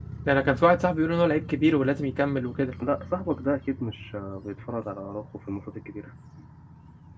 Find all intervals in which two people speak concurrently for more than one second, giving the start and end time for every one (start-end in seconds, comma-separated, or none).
none